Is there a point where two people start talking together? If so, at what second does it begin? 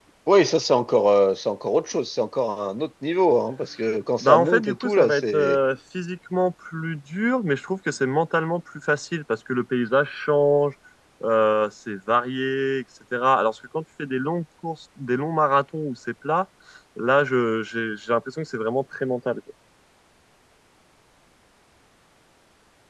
4 s

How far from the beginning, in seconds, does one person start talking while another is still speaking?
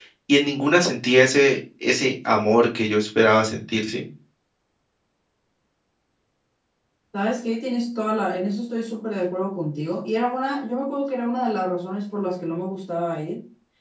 none

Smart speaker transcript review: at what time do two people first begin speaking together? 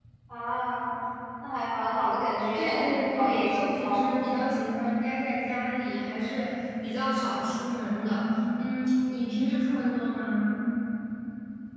3 s

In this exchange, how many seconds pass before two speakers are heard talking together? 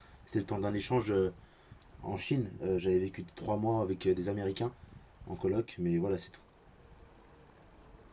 none

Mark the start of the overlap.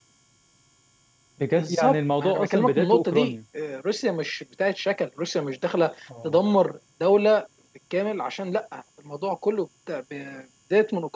2 s

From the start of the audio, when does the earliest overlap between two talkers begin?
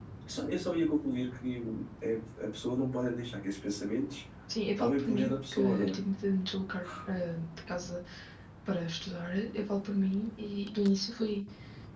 5 s

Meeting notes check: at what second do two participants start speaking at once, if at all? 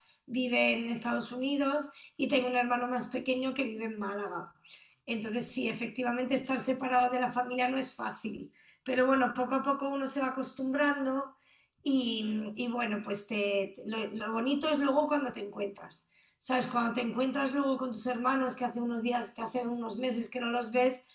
none

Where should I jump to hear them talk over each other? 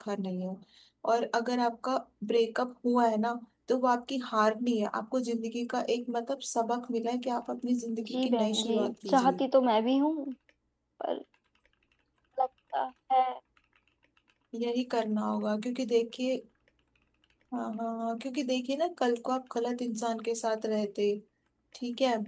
8 s

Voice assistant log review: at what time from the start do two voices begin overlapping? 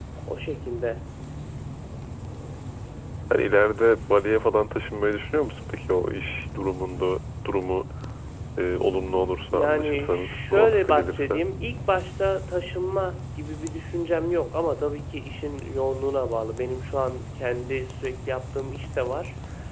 10 s

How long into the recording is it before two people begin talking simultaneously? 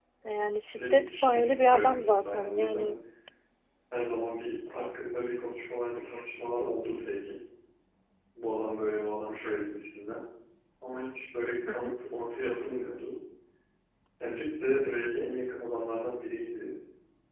1 s

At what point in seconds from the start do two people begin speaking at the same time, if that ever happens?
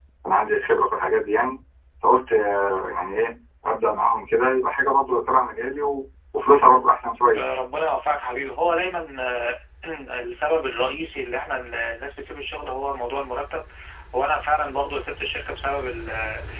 none

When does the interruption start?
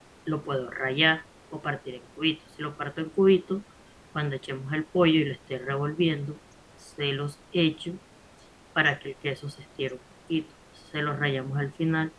none

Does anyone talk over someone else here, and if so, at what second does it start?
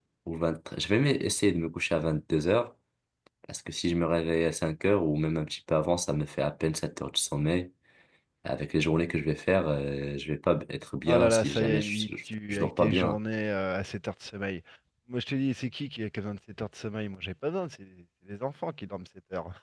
11 s

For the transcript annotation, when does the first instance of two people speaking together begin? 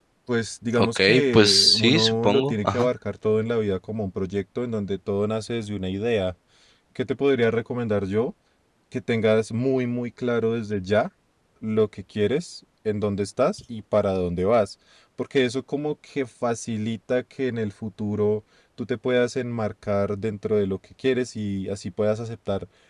1 s

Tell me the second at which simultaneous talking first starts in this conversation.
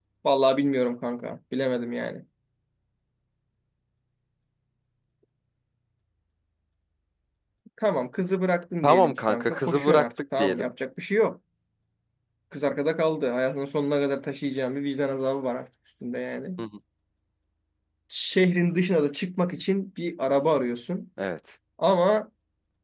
9 s

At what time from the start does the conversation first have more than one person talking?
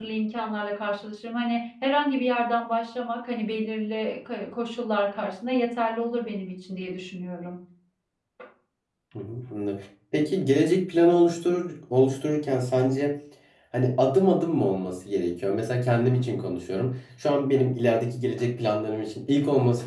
none

